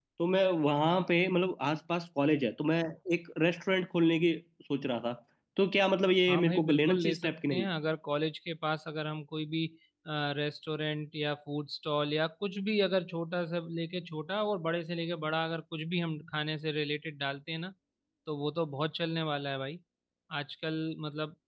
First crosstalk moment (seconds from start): 6 s

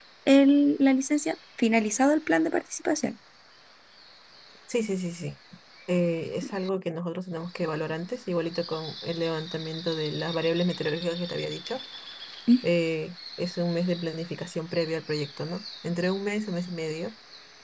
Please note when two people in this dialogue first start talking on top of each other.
none

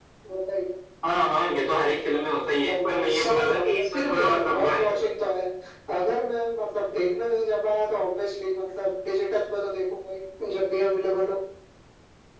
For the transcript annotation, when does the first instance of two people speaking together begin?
3 s

